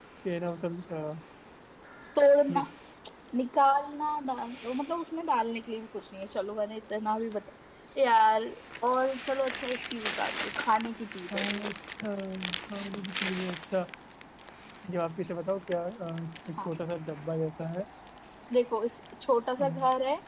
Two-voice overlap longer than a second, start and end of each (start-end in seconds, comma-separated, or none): none